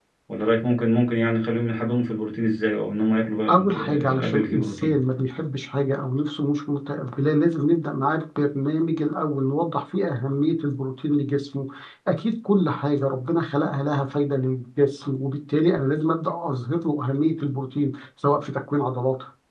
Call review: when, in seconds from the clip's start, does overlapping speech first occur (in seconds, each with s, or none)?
3.5 s